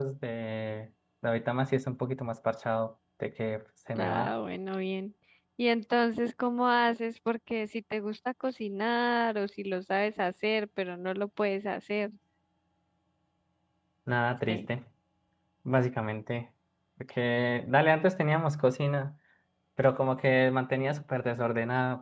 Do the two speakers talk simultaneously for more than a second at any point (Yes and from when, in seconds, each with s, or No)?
No